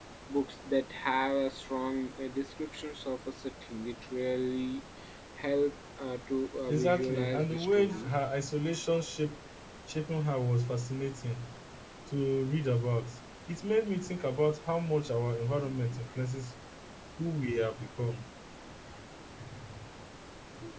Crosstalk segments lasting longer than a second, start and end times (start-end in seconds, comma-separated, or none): 6.7-8.1